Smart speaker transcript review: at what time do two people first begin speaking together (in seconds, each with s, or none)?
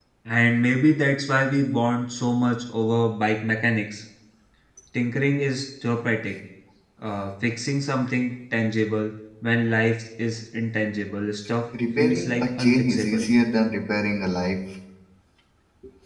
12.0 s